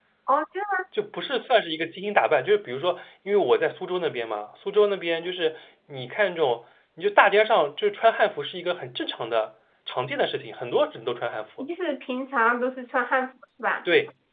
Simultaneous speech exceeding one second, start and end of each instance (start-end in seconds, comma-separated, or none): none